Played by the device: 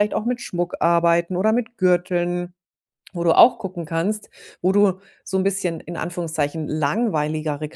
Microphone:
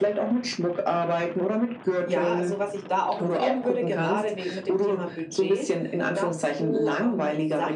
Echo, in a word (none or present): present